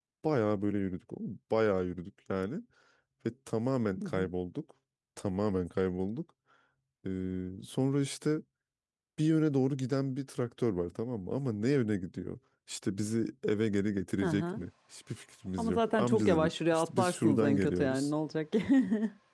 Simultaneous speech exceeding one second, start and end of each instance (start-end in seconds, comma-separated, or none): 15.6-18.1